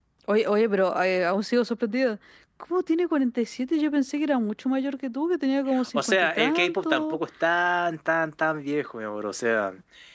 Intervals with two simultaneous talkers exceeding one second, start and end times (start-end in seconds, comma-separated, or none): 5.9-7.2